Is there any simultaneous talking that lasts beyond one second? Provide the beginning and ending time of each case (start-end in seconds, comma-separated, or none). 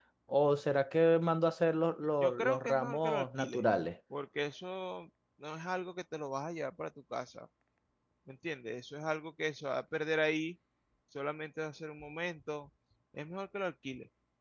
2.2-3.6